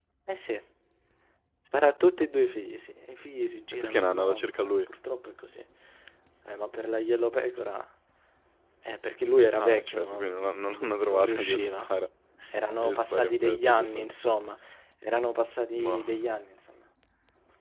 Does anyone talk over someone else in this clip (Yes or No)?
Yes